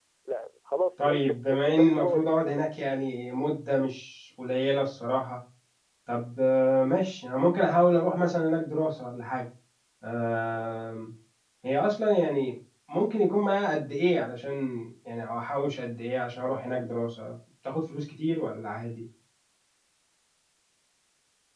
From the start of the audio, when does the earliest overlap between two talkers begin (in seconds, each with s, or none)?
1.0 s